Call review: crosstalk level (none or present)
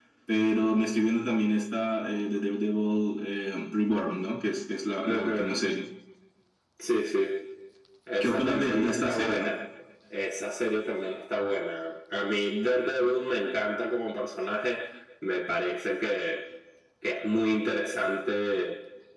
present